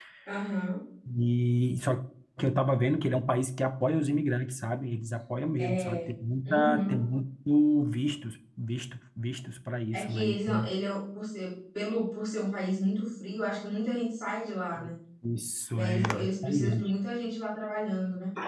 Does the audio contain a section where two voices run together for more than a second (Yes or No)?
Yes